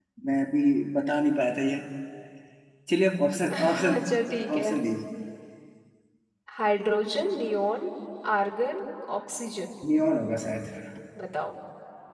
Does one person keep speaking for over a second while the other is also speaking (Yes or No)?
No